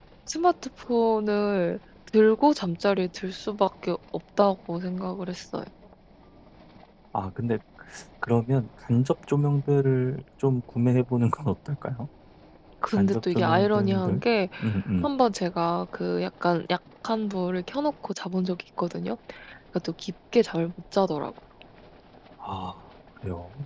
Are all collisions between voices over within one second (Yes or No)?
No